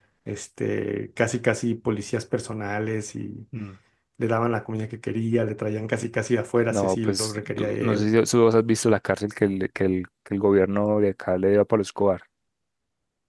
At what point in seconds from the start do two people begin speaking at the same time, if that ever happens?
6.7 s

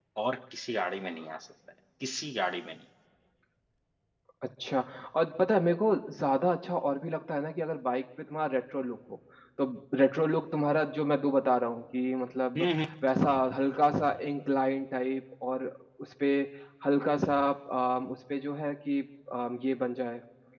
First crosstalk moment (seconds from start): none

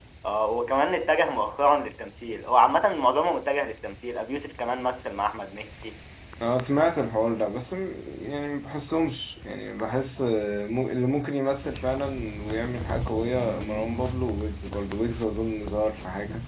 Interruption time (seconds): none

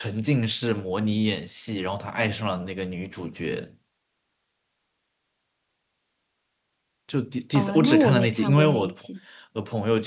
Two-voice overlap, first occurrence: 7.5 s

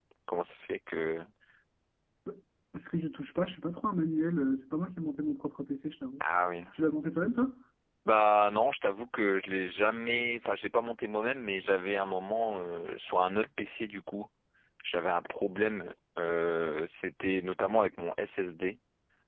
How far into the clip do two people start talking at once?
none

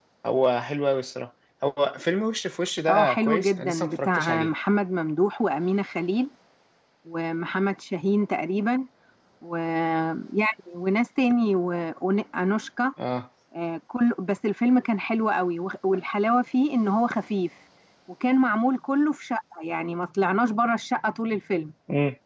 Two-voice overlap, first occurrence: 2.9 s

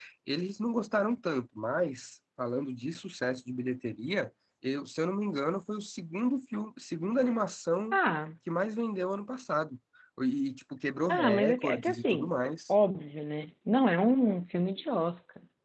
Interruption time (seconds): 11.1 s

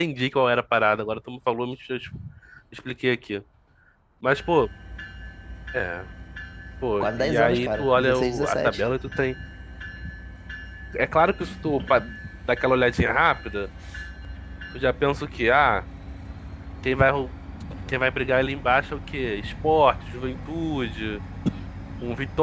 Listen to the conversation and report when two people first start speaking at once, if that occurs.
7.0 s

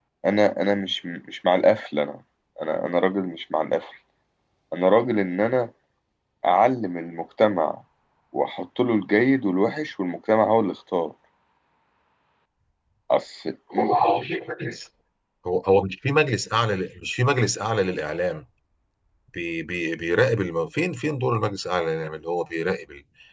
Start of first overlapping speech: none

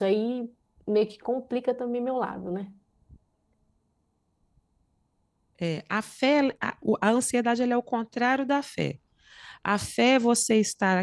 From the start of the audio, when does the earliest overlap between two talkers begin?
none

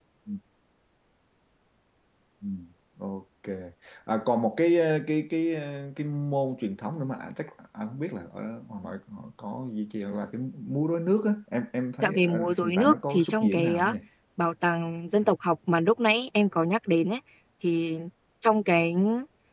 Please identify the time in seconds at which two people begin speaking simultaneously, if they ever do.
12.0 s

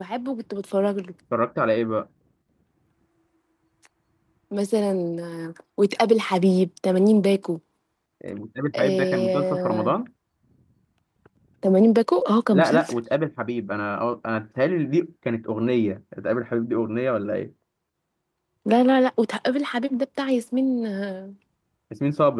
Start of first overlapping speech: 8.8 s

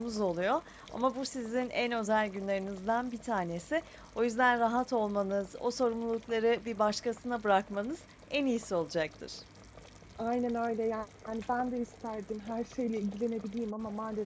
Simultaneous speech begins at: none

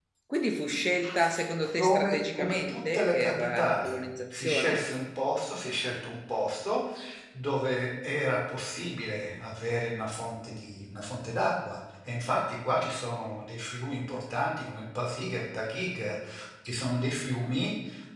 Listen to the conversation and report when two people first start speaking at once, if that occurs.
1.8 s

